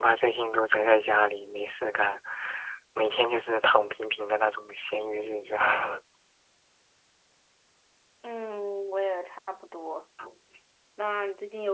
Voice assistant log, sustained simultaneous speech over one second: none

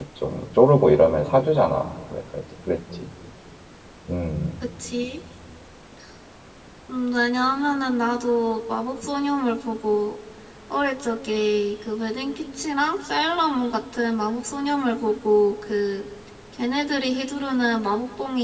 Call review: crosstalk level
none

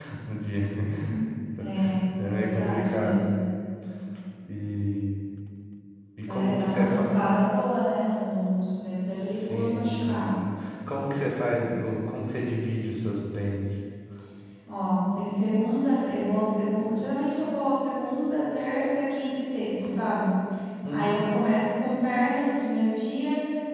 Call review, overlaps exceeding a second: present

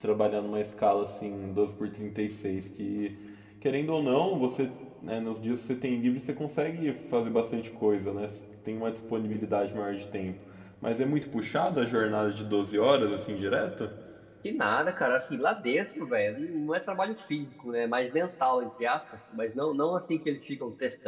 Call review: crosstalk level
none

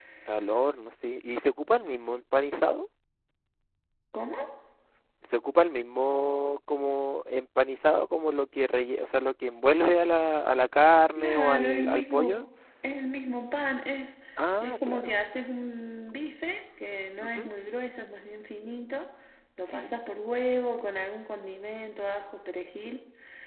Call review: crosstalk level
present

